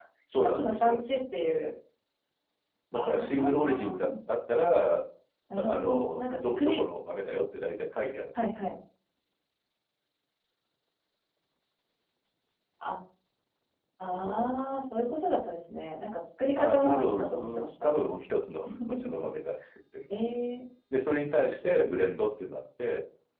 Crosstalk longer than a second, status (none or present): present